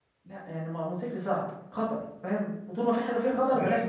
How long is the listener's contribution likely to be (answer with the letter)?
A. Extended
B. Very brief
A